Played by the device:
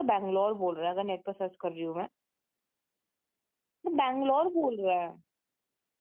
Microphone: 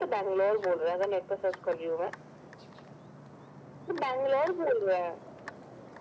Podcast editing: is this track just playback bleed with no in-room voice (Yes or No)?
Yes